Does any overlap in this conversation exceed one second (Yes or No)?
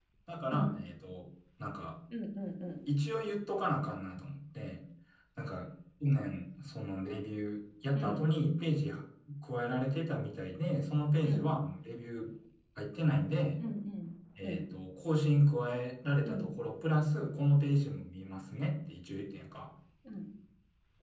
No